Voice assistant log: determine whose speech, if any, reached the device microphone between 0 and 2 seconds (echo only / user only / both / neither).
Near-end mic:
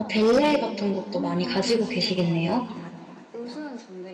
both